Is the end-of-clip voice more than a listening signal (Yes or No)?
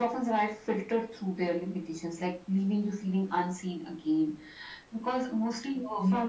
No